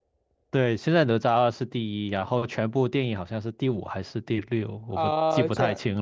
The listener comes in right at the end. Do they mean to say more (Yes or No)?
Yes